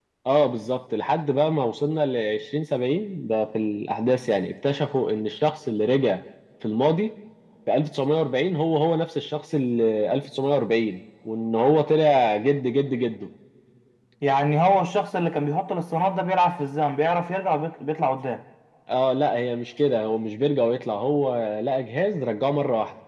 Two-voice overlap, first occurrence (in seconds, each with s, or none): none